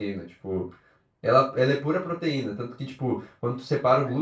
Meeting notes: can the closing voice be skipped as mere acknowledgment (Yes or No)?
Yes